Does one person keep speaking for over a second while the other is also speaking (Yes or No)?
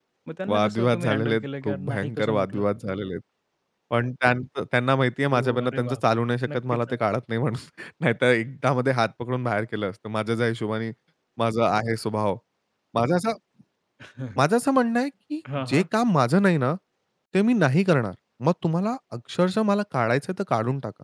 Yes